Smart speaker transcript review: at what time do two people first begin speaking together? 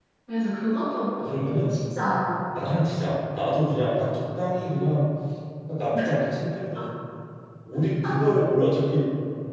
none

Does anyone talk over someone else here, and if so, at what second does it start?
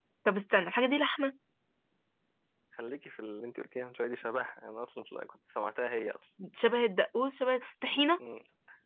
none

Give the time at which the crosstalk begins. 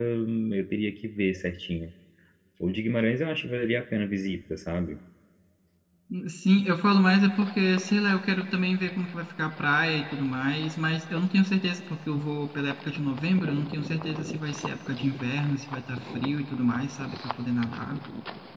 none

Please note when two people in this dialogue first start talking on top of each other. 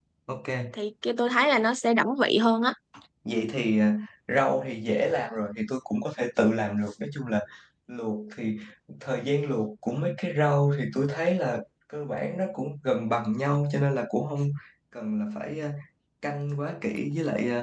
none

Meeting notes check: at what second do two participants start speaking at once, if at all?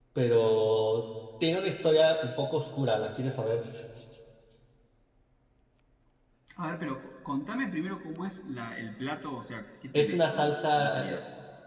9.9 s

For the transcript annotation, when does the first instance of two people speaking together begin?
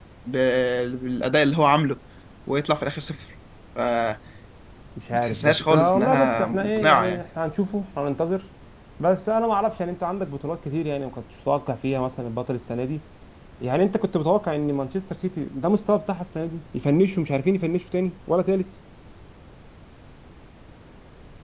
5.2 s

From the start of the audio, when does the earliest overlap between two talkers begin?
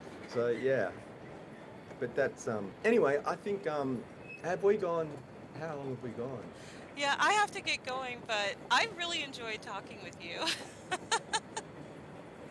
none

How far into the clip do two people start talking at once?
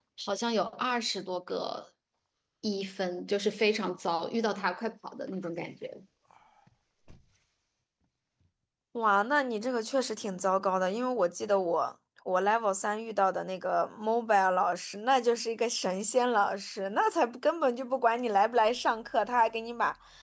none

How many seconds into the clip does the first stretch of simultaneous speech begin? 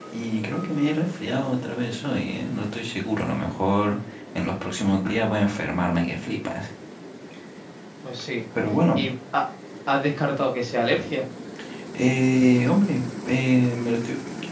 none

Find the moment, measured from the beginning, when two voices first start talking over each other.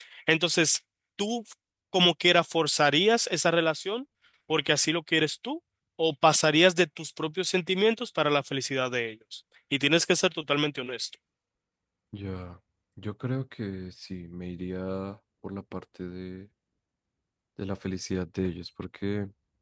none

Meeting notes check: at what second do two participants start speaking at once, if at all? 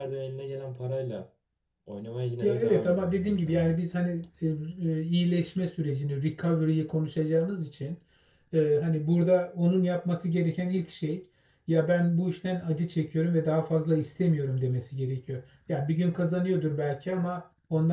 2.4 s

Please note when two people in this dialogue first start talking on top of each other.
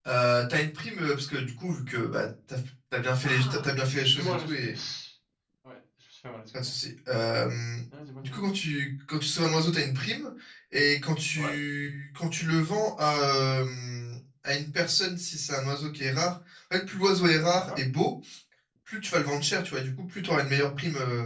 3.2 s

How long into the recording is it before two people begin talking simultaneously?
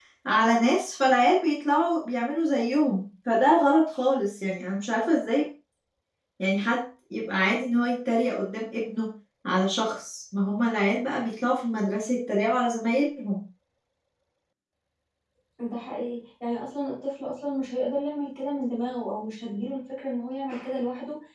none

